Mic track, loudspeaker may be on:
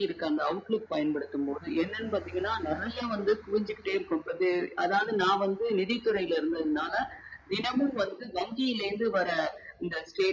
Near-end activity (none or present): none